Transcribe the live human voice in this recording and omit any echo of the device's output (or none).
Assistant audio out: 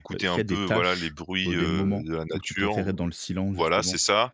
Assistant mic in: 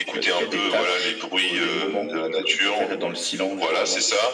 none